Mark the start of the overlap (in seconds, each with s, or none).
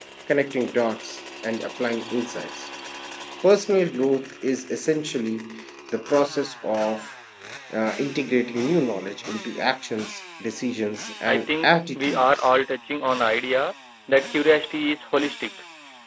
11.3 s